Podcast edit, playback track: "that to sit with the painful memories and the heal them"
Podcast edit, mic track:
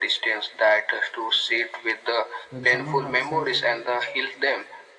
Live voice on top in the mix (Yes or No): No